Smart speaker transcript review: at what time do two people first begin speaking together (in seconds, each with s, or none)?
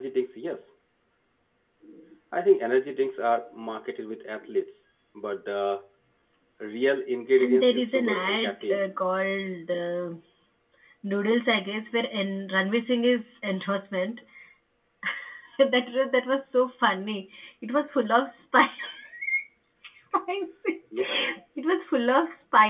7.4 s